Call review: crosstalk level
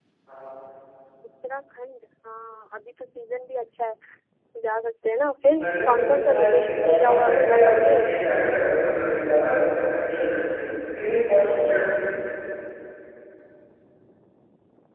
present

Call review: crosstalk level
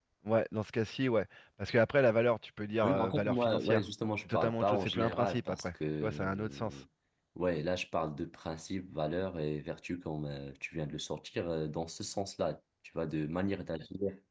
present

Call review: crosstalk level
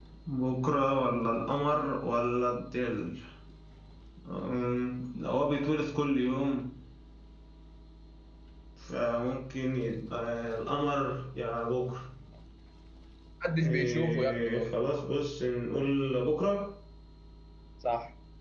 present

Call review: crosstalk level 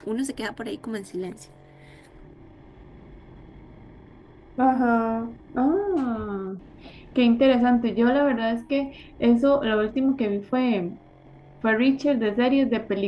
none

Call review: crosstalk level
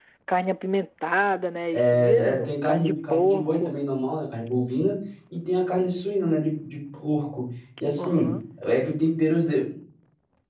present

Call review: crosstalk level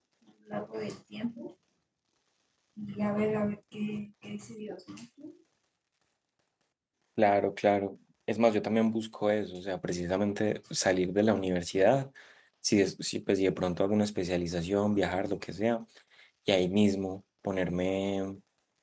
none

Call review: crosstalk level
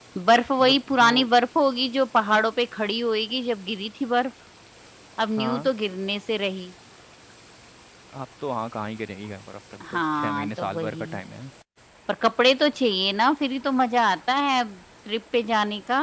present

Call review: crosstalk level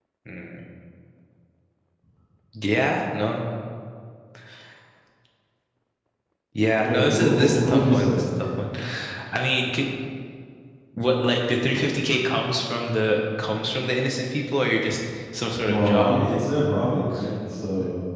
present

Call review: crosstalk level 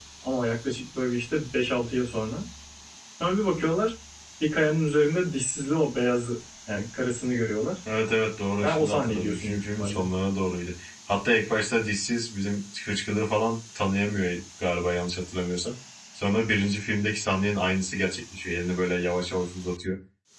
present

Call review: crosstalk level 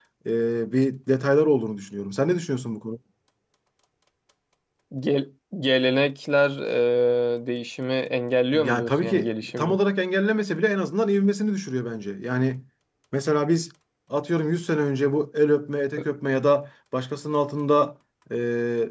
present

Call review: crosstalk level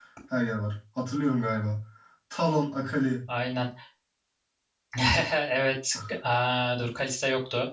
none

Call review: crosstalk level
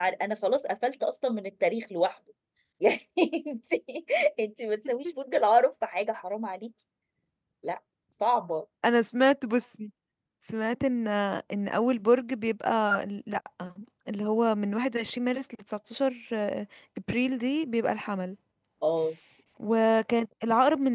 none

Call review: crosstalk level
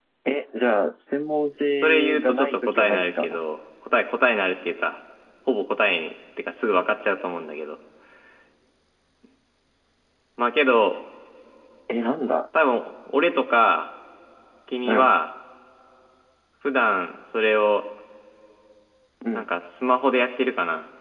present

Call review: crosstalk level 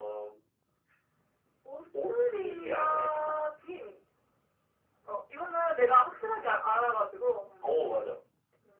present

